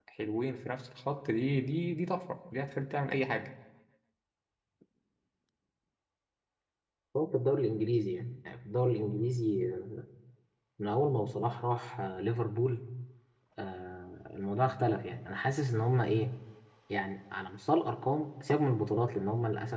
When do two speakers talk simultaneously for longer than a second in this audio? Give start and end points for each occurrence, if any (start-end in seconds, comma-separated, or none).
none